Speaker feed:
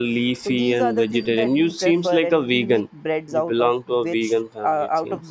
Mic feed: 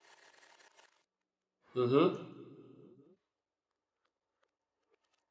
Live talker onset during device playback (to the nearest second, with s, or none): 2 s